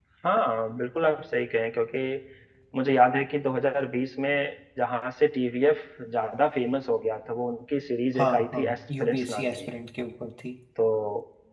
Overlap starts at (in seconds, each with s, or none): 8.2 s